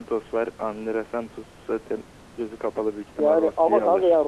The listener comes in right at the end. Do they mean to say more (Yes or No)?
Yes